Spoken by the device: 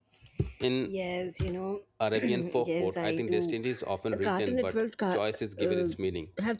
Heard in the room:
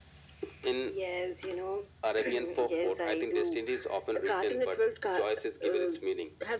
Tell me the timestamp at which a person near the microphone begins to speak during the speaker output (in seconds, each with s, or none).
none